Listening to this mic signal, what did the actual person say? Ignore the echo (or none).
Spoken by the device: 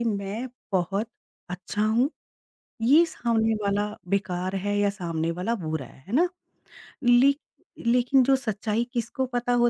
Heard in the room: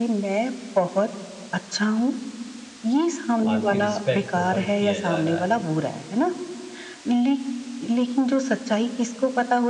आपकी रिस्पेक्ट को हर्ट किया जा रहा है।